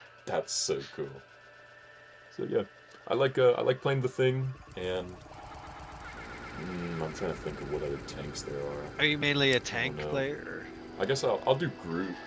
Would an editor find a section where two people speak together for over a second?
No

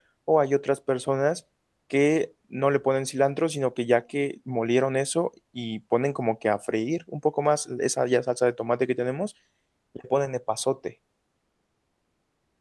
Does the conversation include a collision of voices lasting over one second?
No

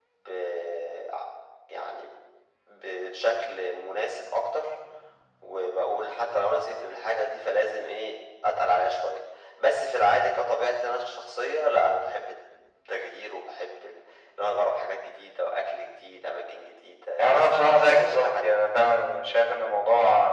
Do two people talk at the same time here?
Yes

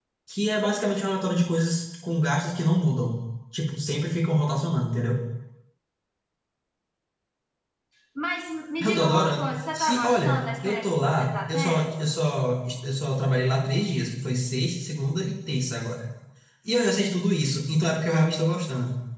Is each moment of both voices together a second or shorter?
No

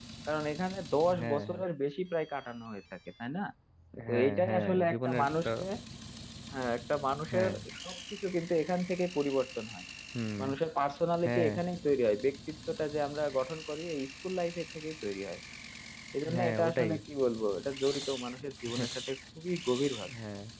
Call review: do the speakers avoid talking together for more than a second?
No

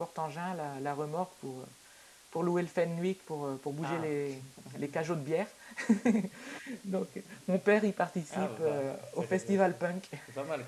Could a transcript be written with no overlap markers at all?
No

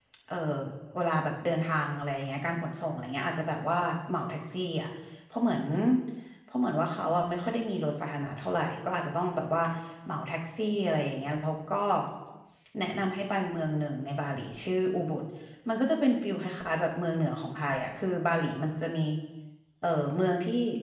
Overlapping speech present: No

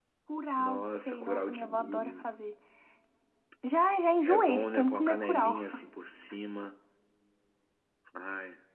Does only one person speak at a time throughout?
No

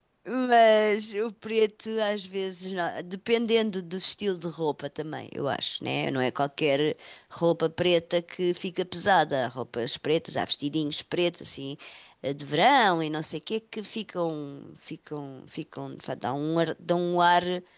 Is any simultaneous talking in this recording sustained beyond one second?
No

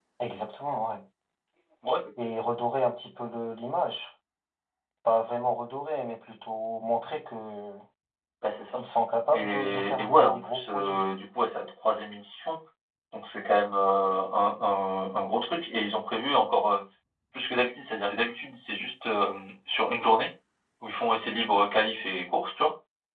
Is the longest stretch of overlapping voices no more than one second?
No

